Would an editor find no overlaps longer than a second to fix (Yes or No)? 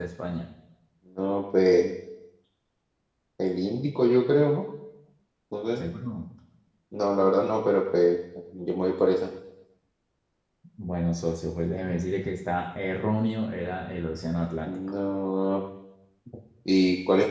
Yes